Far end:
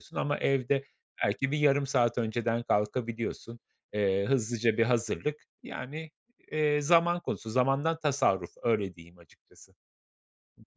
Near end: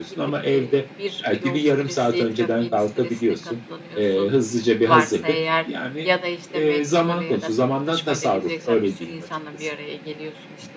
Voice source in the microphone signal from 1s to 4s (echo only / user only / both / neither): both